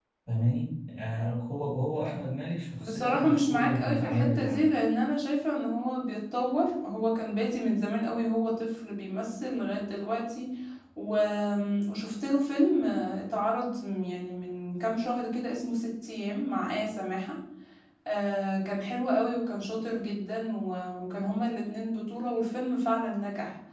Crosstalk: present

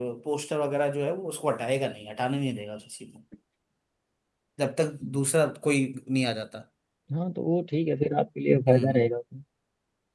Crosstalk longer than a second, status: none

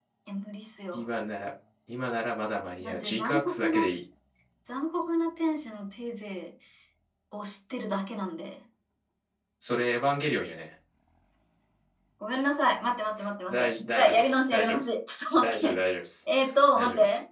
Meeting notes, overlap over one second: present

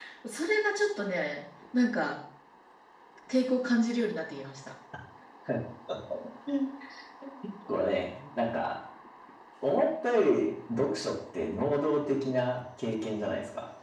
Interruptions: none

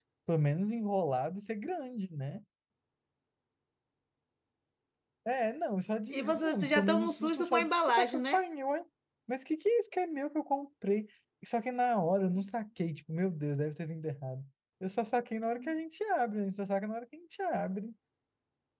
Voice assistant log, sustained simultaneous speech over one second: present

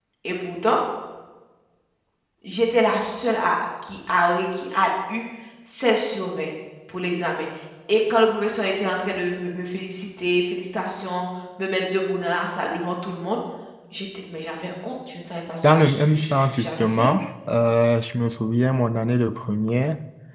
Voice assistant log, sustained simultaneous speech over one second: present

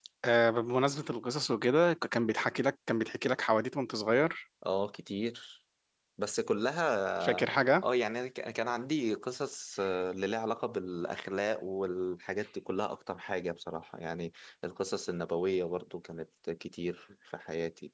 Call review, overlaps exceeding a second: none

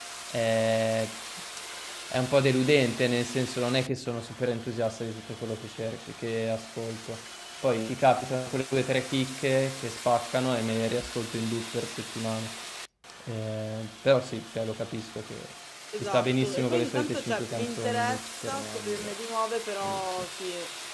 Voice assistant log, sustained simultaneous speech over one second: present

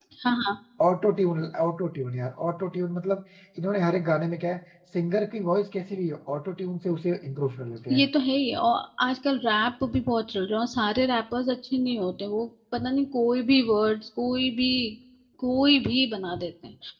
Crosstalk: none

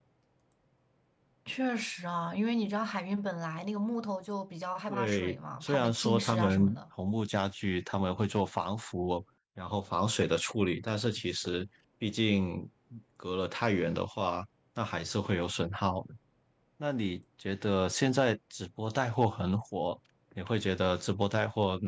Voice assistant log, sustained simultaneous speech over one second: present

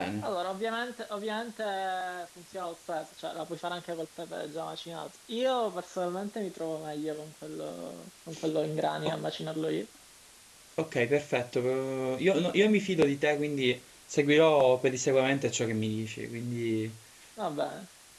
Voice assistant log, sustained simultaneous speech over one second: none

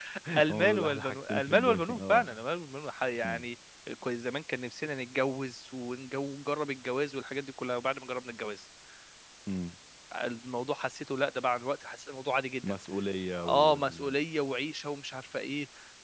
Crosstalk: present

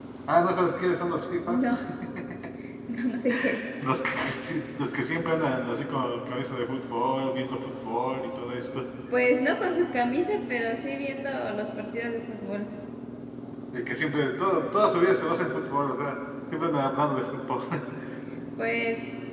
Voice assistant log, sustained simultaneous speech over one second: none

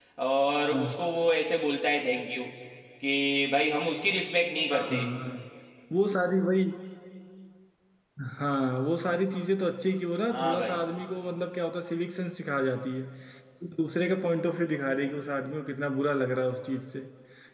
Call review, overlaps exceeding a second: none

